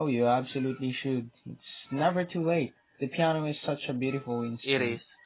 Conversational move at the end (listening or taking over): taking over